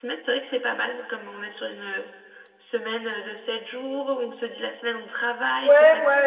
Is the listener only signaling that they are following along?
No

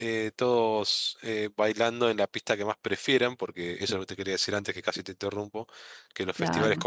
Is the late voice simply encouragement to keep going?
Yes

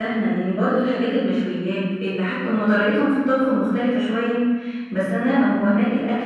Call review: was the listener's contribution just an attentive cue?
Yes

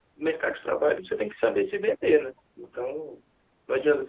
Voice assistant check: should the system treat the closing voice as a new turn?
No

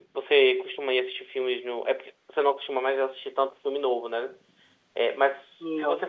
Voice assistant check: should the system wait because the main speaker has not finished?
Yes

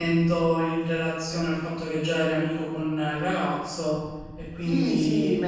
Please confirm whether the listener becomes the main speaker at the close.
Yes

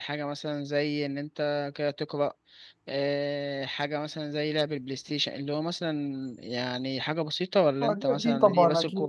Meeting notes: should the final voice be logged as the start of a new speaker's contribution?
Yes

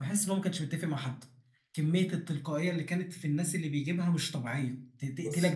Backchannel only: No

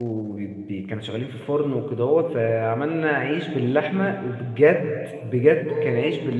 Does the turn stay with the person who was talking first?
Yes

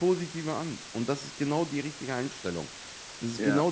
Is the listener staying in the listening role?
Yes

